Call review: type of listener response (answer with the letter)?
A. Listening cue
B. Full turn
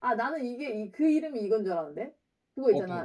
A